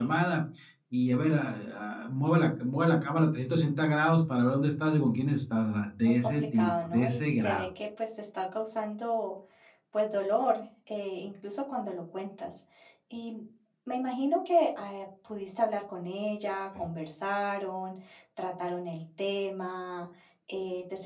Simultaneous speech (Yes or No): Yes